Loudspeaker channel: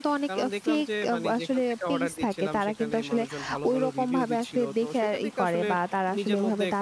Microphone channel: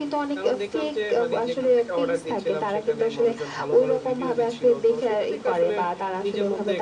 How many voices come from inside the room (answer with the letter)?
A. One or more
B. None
B